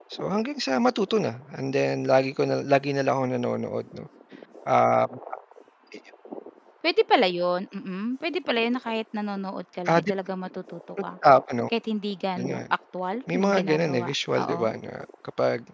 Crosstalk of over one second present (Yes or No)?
Yes